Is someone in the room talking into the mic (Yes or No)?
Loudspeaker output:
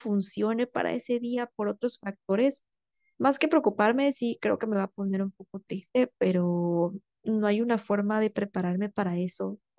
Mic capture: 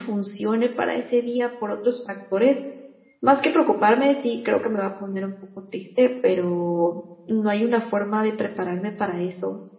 No